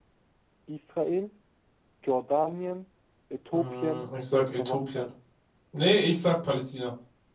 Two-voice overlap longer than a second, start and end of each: 3.5-5.1

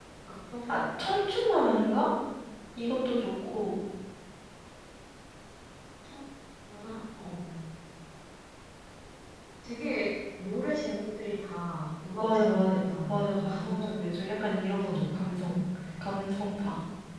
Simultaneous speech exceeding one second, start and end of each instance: 12.2-14.0

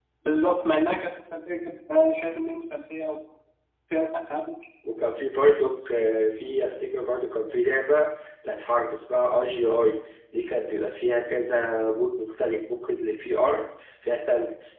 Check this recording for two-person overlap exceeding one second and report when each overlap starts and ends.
none

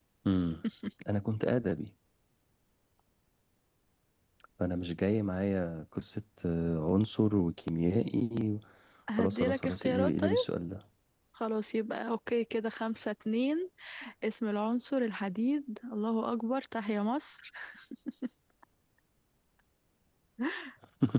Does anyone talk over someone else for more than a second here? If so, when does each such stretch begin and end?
9.2-10.4

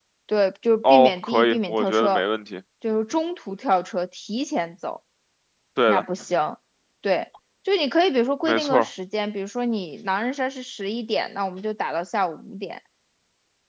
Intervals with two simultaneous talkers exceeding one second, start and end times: 0.8-2.2

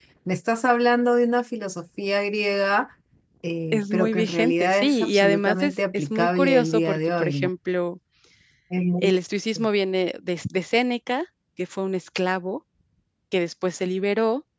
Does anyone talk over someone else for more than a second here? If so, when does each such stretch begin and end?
3.7-7.5

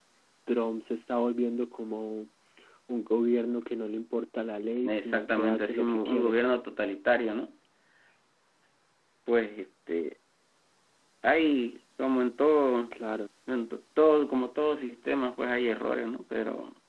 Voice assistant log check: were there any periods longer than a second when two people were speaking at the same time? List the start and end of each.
4.8-6.4

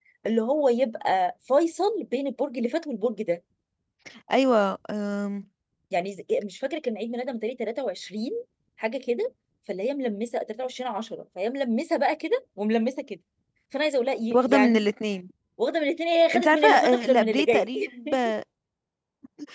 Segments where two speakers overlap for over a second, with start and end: 16.4-17.7

